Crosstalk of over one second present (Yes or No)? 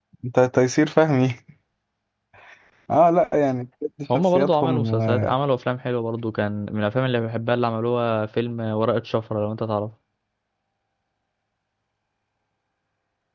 Yes